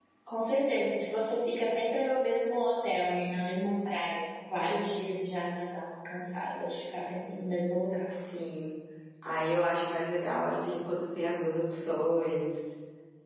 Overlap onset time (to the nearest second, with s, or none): none